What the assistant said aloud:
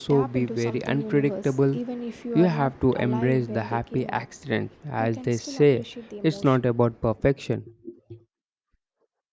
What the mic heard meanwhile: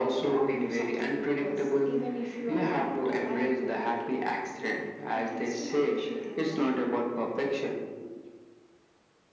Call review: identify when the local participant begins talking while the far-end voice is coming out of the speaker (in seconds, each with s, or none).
none